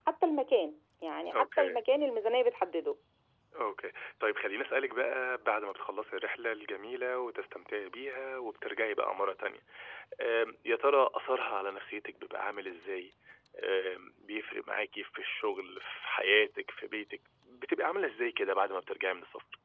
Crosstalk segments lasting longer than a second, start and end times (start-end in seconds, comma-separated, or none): none